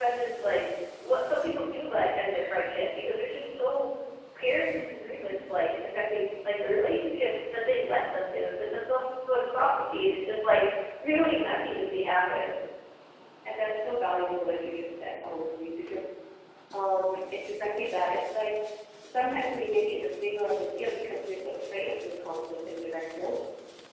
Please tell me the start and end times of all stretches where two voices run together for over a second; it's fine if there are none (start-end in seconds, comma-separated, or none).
none